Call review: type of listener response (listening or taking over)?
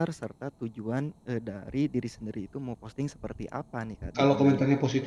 taking over